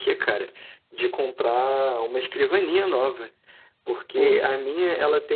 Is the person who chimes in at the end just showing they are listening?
Yes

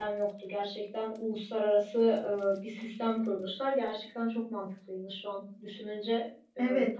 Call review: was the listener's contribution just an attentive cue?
No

